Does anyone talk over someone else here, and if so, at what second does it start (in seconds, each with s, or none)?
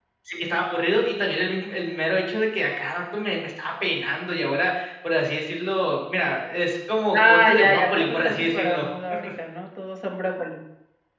7.1 s